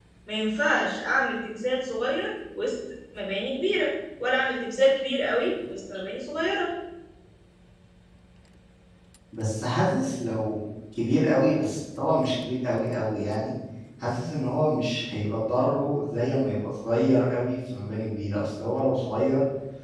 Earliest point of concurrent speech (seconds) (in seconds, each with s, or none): none